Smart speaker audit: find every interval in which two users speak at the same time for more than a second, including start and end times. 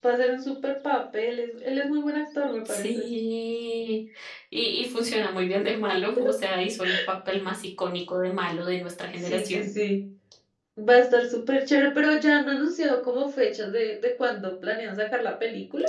none

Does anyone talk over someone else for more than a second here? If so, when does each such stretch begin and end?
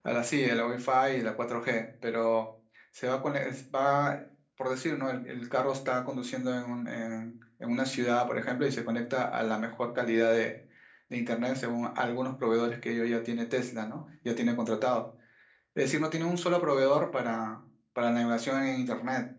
none

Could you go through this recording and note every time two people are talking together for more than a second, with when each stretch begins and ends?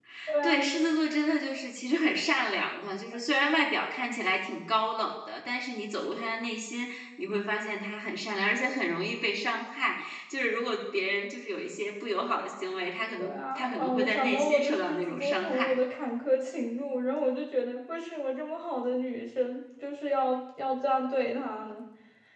13.2-15.7

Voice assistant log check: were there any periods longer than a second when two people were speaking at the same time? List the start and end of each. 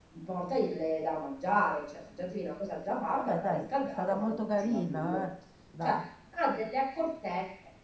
3.1-5.2

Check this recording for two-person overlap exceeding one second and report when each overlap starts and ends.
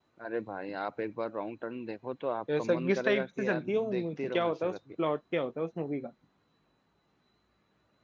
2.6-4.8

